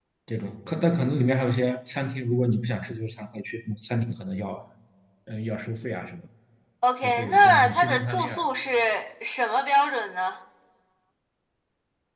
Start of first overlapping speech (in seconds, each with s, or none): 7.0 s